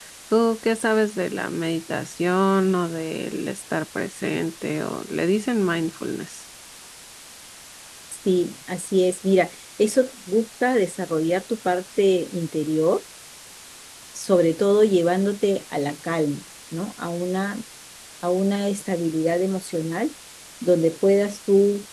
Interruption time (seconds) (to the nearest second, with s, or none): none